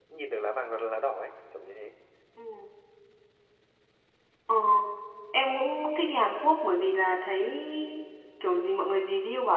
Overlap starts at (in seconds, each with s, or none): none